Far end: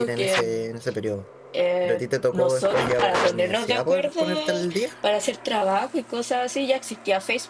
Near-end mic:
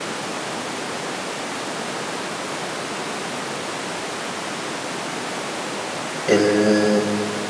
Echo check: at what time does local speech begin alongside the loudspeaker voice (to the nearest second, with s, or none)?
6 s